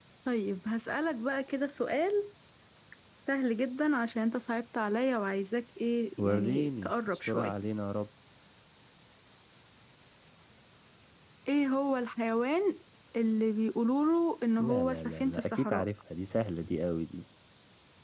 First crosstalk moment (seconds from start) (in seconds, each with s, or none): 6.2 s